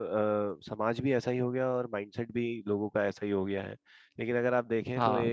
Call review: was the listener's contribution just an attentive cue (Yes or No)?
Yes